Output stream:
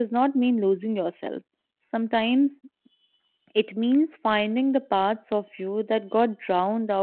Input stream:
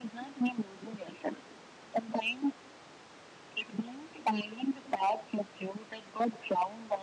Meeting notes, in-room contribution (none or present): none